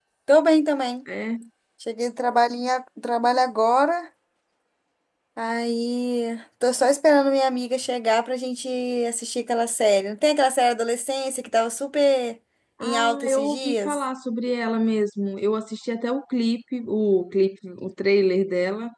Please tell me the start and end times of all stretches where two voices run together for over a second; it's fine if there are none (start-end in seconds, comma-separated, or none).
12.8-14.0